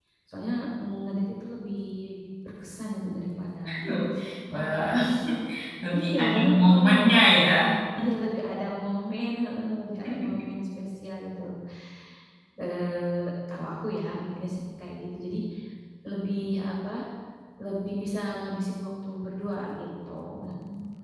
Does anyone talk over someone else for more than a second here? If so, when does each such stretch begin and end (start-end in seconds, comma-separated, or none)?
5.9-7.3